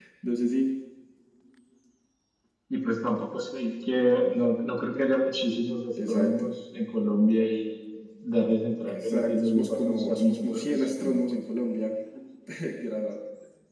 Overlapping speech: Yes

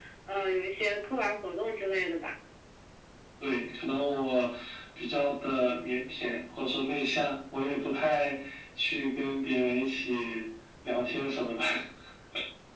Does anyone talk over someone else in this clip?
No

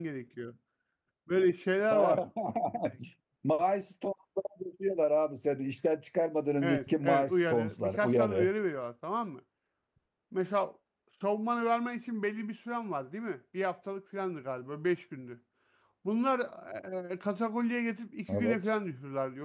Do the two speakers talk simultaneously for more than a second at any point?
Yes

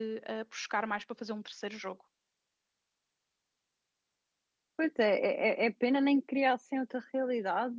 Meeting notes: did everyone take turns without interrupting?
Yes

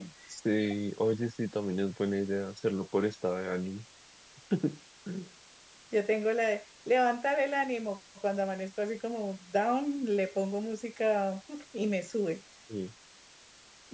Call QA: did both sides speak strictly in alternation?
Yes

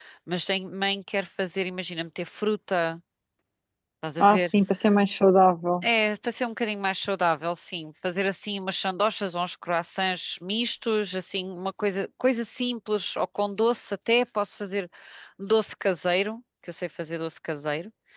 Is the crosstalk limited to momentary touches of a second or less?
Yes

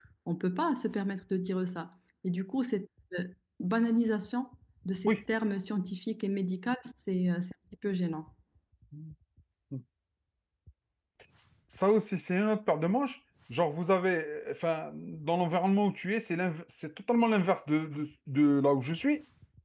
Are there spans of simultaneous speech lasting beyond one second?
No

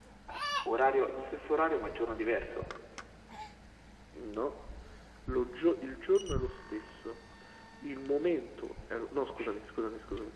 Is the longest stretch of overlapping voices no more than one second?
Yes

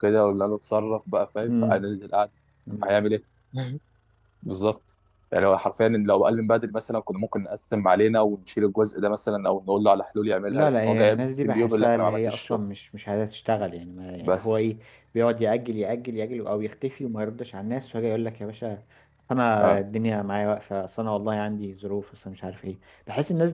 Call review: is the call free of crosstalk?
No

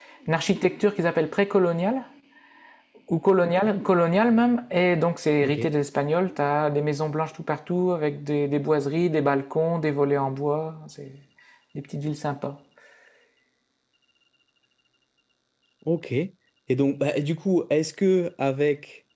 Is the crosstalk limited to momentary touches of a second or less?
Yes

